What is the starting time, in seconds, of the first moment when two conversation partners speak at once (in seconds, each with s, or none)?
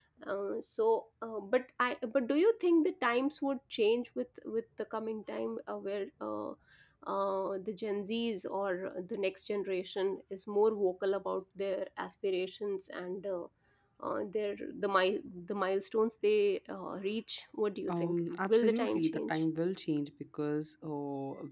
17.9 s